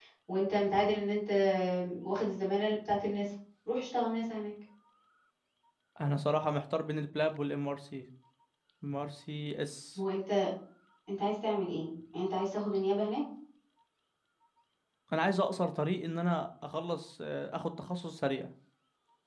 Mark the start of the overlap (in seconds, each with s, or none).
none